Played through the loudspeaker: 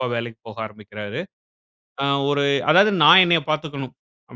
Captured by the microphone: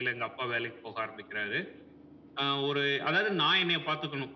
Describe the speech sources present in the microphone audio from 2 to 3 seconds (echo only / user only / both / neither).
echo only